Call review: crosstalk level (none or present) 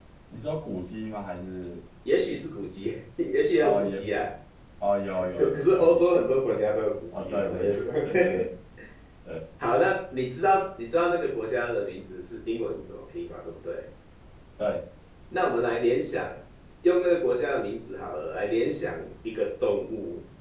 present